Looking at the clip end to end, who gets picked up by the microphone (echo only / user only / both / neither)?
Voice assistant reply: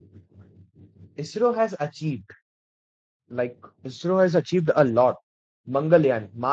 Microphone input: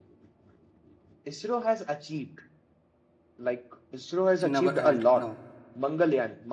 both